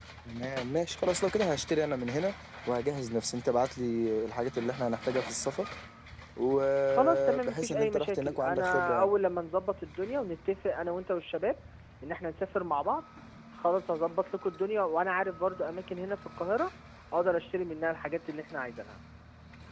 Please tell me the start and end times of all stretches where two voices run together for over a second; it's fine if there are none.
6.9-9.1

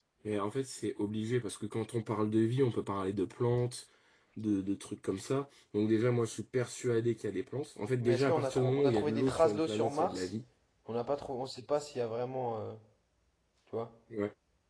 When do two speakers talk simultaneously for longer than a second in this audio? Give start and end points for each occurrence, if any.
8.0-10.3

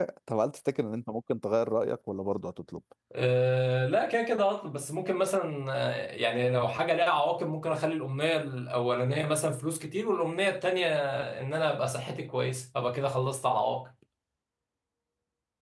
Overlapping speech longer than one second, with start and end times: none

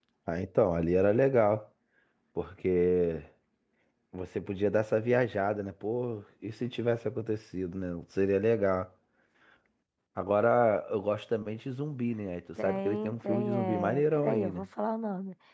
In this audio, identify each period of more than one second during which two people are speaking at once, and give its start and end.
12.6-14.7

